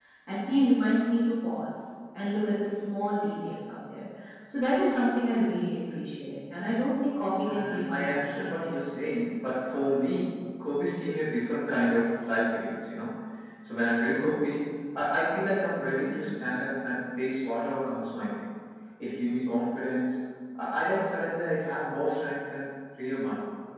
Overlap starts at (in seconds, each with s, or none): 7.4 s